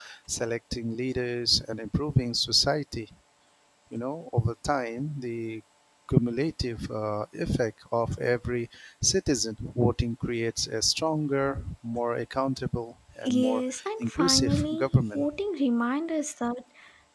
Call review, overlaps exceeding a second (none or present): present